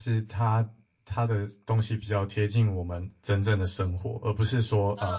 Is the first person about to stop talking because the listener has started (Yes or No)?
No